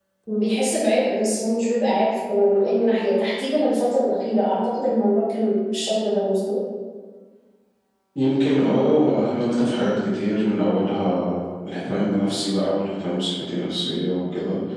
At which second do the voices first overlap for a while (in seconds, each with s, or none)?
none